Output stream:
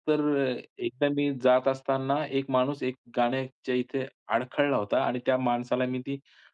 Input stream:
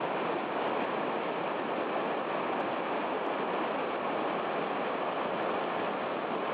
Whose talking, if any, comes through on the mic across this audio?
neither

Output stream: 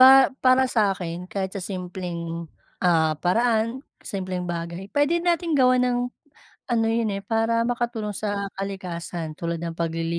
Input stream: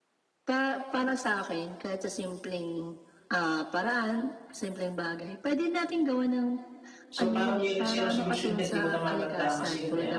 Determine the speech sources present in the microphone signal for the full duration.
both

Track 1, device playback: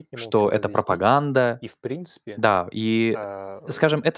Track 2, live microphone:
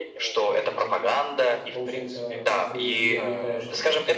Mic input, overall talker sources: both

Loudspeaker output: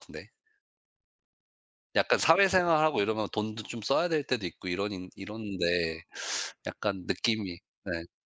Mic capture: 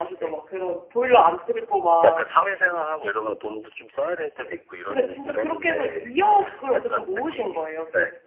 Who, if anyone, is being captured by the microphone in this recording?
both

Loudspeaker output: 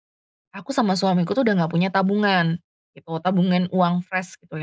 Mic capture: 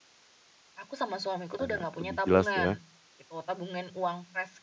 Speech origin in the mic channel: both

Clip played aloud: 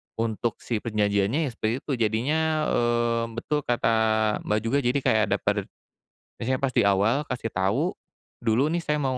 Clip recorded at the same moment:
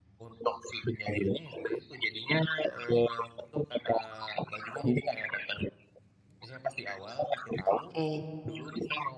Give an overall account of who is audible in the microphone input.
both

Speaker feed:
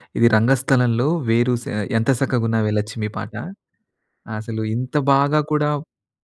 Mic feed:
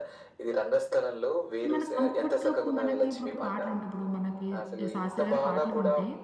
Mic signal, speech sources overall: both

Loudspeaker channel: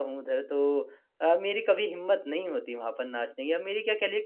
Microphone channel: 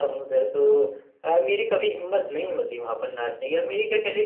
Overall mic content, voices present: echo only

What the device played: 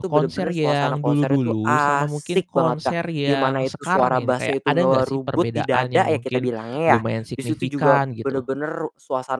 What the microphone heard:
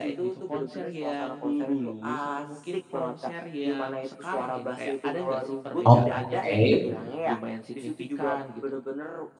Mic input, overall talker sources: both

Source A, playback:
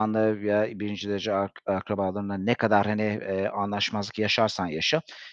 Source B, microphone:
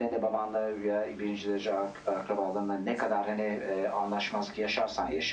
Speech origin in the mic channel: echo only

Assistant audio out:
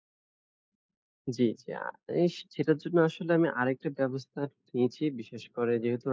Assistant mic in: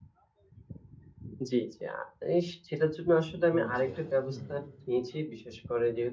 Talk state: both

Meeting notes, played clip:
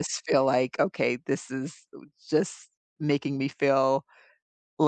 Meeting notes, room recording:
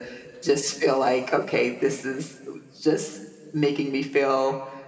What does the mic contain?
echo only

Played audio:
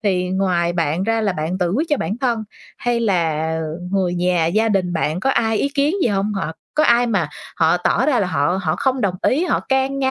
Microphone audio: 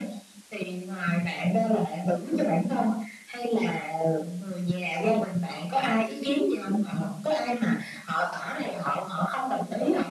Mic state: echo only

